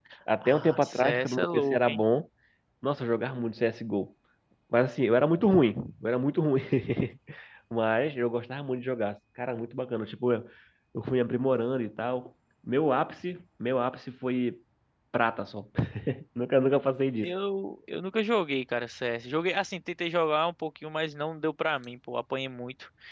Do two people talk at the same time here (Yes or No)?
Yes